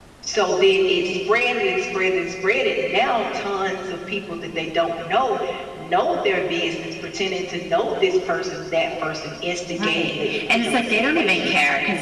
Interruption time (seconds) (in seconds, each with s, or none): 9.8 s